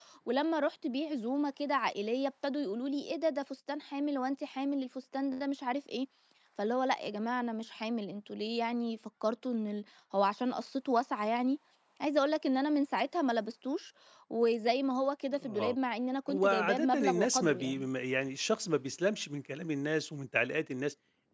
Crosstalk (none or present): present